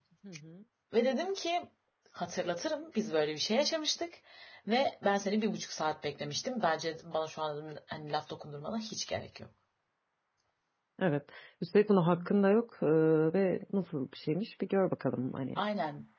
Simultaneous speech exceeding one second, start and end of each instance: none

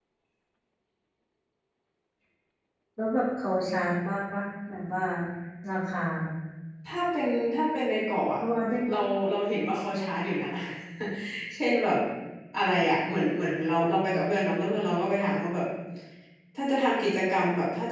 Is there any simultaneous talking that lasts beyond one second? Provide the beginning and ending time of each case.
none

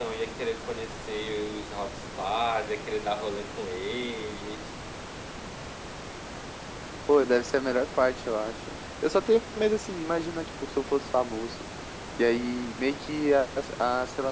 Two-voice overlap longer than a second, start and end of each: none

